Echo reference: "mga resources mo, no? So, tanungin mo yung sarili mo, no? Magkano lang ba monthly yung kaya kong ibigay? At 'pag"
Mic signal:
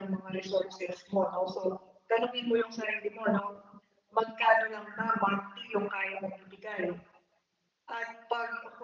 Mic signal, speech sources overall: echo only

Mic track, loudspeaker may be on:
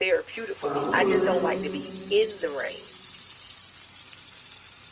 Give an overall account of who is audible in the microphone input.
both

